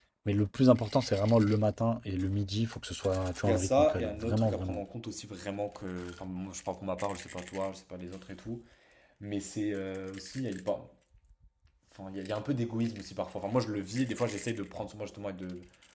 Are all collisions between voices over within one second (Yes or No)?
No